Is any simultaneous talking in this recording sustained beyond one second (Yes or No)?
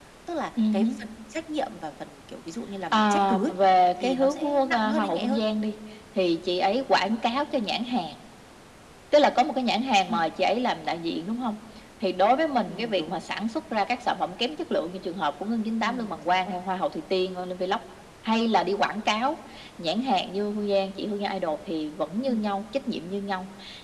Yes